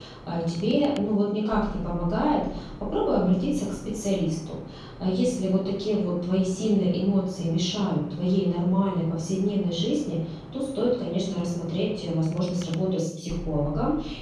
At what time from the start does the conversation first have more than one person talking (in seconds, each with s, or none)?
none